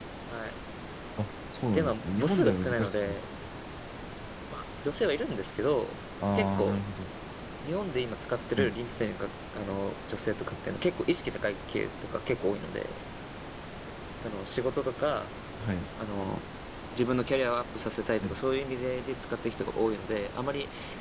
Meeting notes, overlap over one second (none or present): present